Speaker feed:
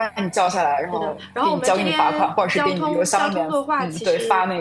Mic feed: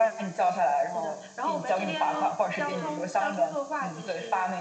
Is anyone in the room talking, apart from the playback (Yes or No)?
Yes